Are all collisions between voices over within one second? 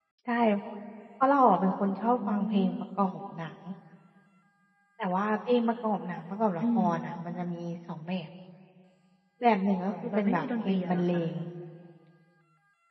No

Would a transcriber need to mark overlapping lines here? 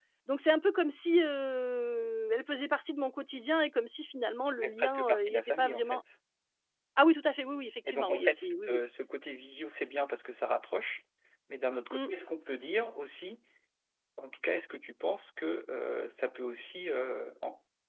Yes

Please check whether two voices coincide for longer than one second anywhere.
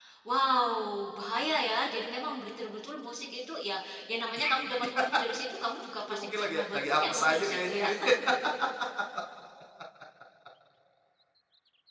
Yes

